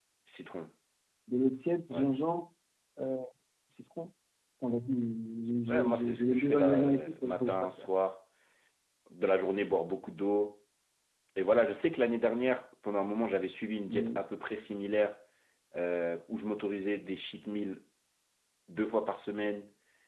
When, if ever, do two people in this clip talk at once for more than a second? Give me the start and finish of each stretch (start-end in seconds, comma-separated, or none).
5.7-7.9